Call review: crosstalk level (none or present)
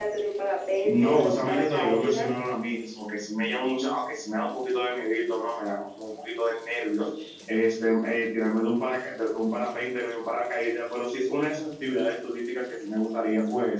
present